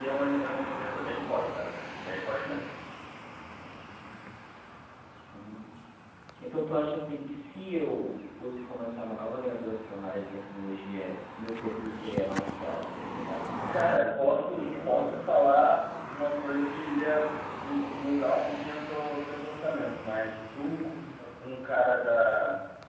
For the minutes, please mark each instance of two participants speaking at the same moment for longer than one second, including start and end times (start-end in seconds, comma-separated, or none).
13.7-15.1